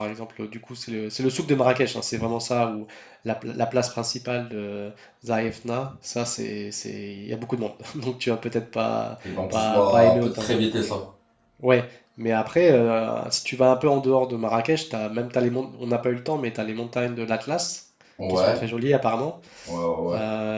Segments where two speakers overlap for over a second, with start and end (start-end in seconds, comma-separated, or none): 9.2-10.5